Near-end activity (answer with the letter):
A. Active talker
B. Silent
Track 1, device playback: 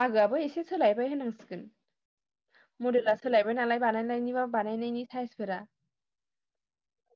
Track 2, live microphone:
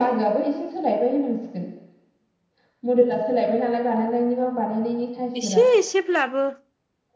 A